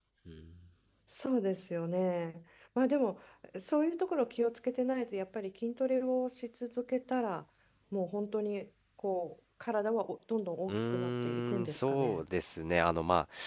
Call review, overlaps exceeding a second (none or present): present